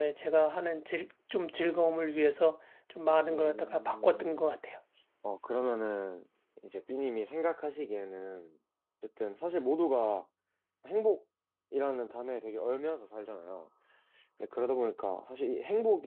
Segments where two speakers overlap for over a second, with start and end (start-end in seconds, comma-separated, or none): 3.3-4.5